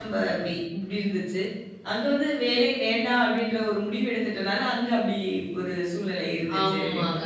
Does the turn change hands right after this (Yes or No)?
Yes